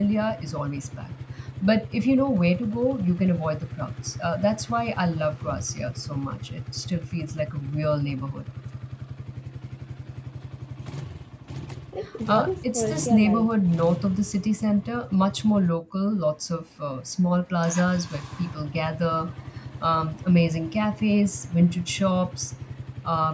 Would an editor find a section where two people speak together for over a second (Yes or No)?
Yes